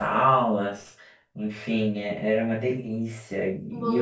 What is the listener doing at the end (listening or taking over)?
listening